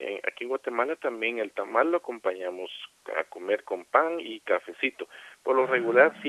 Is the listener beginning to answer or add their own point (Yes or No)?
No